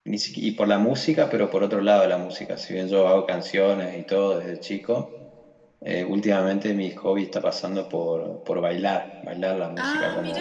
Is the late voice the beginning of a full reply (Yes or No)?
No